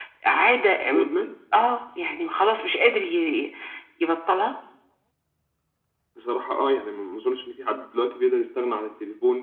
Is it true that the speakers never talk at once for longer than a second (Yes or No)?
Yes